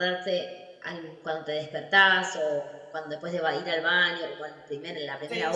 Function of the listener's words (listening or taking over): taking over